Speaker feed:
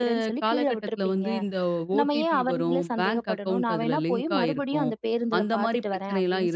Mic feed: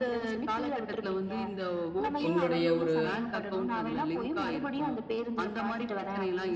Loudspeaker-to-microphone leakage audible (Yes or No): Yes